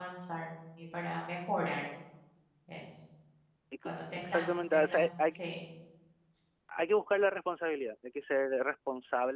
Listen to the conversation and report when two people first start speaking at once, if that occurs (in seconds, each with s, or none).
4.0 s